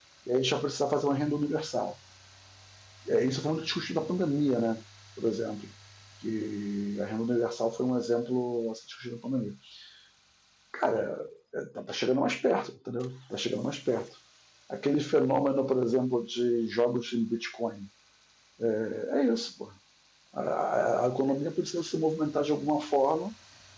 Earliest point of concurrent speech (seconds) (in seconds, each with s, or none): none